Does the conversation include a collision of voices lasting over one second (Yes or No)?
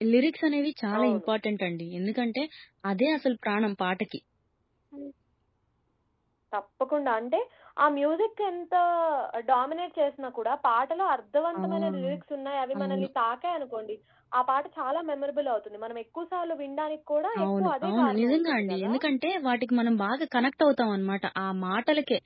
Yes